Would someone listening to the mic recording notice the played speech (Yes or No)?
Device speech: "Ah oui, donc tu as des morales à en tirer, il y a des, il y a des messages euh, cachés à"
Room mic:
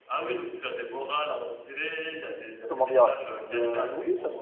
Yes